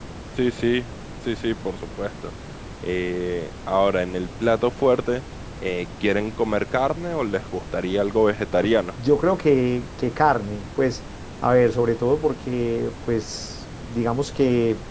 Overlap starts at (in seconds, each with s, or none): none